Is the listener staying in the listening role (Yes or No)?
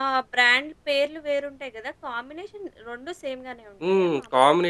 No